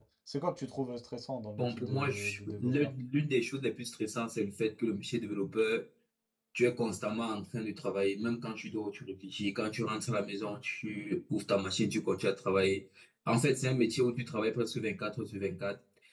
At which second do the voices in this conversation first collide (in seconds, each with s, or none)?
1.6 s